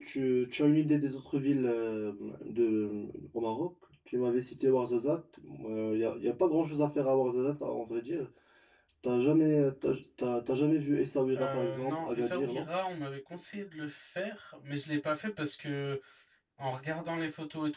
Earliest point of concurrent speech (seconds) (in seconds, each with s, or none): 11.3 s